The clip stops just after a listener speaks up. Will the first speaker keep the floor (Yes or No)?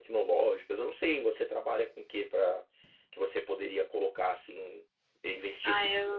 No